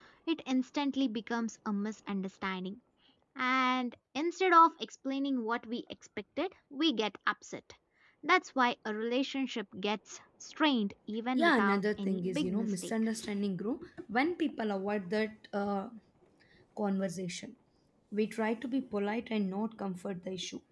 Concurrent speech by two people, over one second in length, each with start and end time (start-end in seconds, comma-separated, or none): 11.3-12.9